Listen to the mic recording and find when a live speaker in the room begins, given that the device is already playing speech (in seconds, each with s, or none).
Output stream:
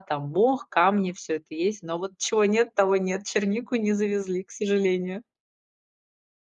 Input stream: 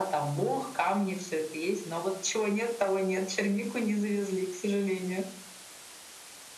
none